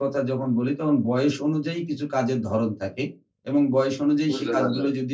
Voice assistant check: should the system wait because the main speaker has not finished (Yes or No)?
Yes